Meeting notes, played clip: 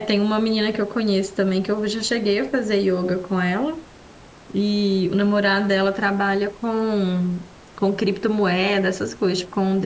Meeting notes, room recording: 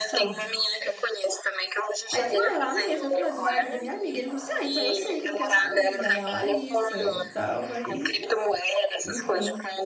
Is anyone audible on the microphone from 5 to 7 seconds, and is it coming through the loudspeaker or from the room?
both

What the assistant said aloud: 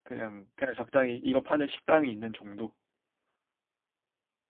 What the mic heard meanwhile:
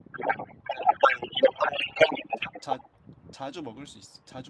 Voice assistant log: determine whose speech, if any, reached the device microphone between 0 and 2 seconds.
echo only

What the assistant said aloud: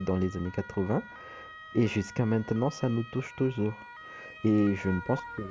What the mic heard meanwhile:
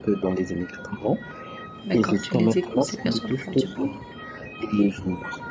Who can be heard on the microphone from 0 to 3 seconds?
both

